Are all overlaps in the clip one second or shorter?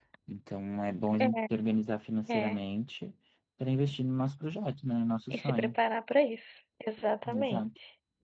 Yes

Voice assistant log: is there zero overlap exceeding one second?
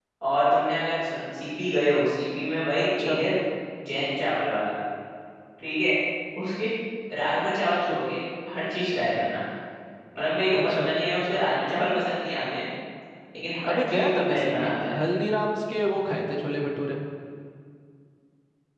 No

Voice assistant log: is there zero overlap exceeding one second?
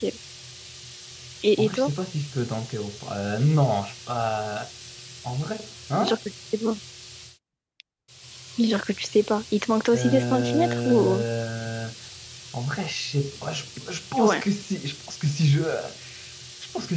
No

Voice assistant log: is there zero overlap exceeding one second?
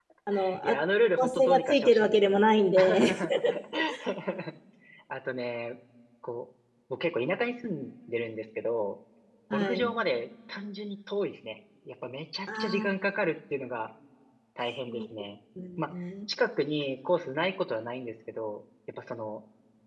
No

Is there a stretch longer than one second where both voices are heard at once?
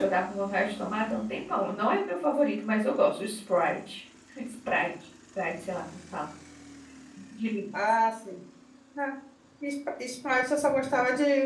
No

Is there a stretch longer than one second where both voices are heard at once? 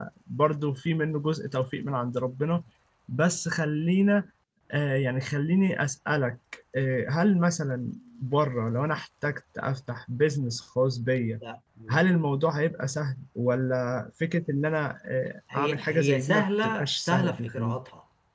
Yes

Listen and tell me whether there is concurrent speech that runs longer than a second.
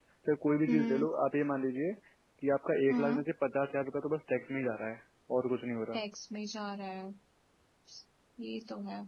No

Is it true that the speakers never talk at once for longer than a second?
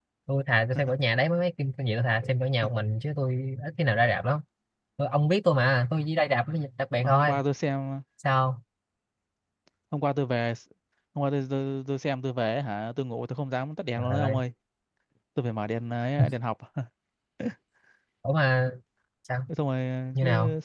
Yes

